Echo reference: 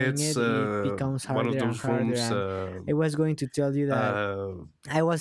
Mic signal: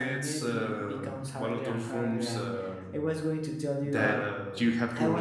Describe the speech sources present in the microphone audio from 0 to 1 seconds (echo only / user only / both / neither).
echo only